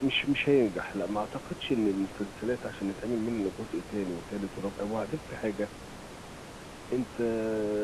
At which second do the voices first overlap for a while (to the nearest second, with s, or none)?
none